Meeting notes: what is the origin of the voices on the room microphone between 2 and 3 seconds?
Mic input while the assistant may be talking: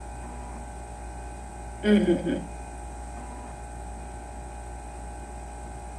user only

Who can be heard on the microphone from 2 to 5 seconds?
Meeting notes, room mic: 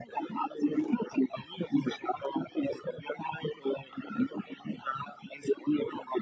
echo only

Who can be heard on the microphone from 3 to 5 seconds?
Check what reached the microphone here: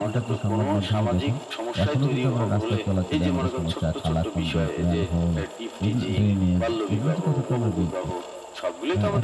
both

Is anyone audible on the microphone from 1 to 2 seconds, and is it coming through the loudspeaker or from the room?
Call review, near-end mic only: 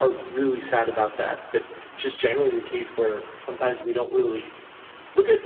user only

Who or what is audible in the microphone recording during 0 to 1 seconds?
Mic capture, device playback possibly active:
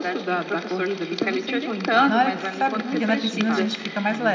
echo only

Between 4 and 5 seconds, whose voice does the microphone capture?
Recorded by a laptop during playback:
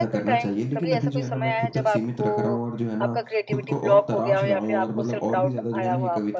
both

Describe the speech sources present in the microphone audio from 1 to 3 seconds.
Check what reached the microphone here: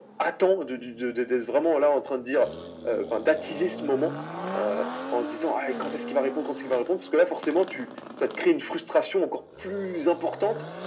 echo only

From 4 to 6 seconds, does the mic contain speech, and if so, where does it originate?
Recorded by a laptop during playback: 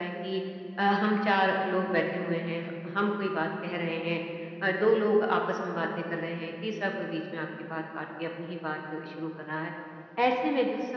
echo only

